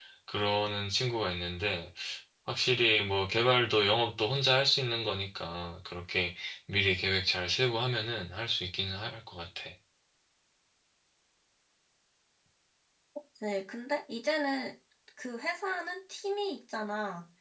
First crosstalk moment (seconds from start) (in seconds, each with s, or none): none